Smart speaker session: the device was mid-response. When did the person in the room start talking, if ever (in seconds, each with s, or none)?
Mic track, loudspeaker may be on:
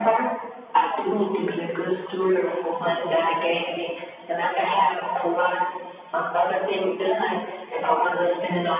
none